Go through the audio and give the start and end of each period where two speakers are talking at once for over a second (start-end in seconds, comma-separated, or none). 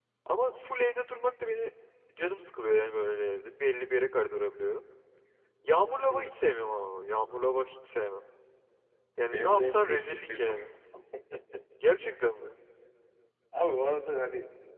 9.3-10.6